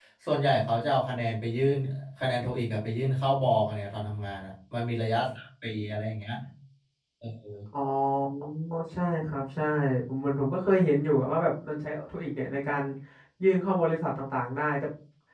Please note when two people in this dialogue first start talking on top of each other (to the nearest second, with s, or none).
none